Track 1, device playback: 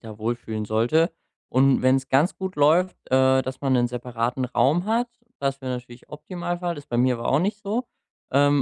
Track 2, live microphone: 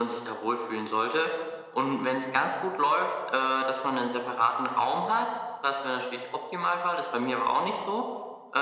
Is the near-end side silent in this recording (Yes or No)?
Yes